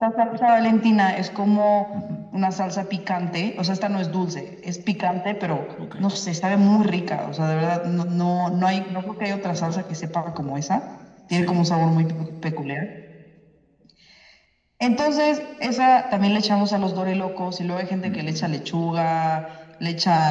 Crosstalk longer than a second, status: none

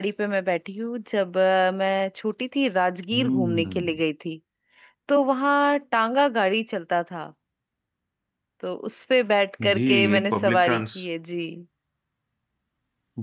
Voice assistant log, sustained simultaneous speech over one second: present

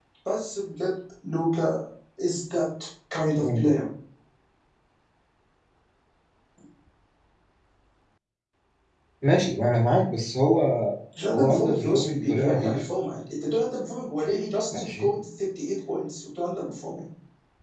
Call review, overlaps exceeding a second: present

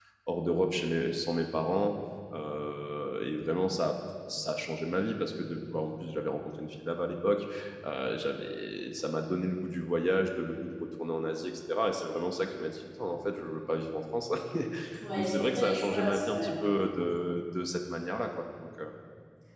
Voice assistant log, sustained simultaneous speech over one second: present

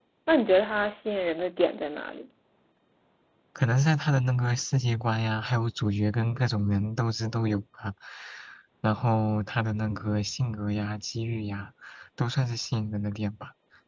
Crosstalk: none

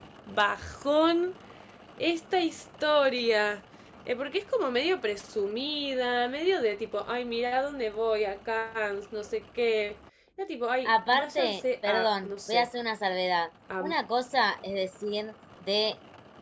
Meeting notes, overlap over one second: present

